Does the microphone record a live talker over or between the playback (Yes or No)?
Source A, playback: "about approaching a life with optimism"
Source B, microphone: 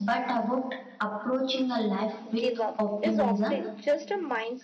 Yes